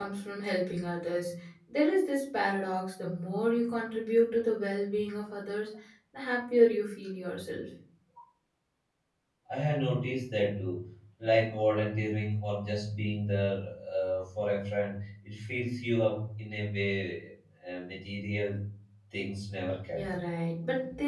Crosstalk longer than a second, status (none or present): none